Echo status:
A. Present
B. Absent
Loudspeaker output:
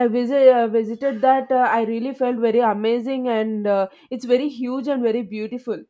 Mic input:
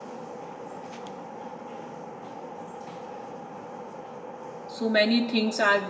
B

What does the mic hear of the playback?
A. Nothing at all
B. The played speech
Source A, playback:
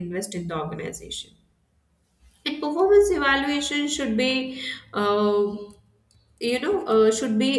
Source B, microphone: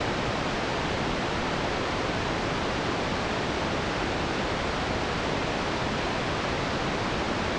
A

